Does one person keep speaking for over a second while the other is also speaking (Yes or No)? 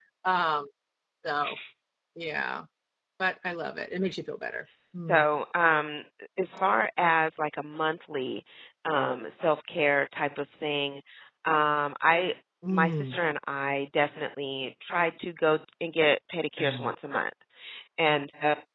No